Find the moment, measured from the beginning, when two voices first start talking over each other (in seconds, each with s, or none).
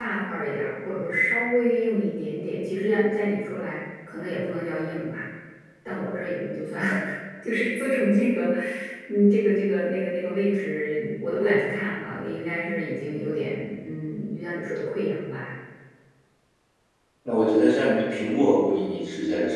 none